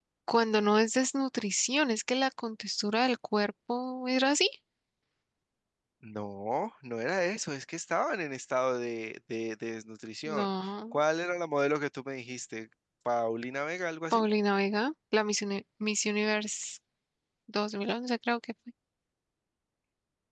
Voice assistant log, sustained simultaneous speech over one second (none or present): none